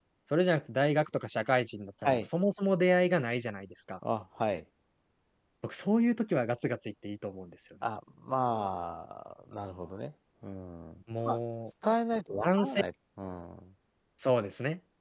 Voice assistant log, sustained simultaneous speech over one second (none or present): none